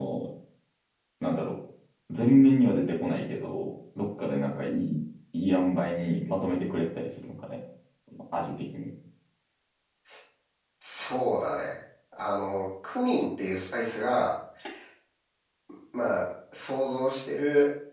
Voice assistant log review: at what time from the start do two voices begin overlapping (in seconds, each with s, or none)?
none